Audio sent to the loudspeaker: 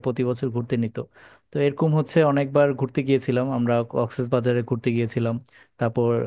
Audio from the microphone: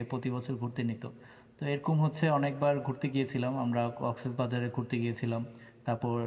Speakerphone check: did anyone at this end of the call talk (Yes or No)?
No